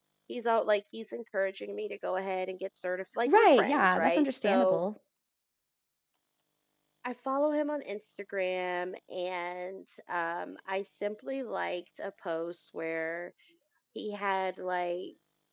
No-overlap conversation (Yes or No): No